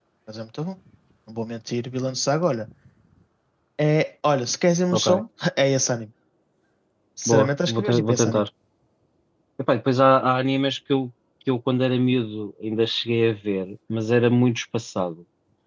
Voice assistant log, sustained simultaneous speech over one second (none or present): present